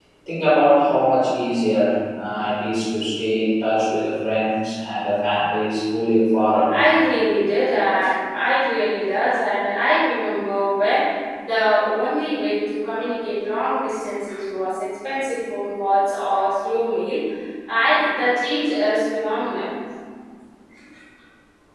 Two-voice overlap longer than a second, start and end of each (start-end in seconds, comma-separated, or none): none